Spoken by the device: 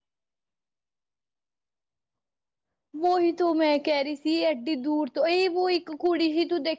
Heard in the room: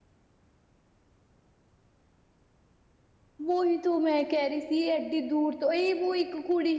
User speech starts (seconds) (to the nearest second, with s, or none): none